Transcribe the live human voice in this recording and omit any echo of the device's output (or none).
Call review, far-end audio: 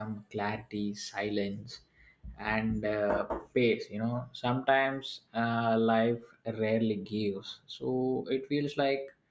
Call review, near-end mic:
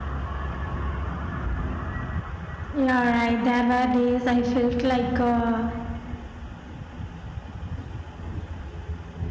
yeah right there were days i felt like uh,